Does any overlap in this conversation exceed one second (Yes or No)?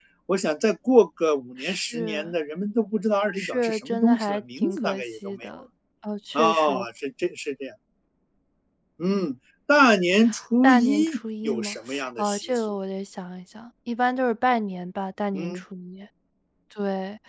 Yes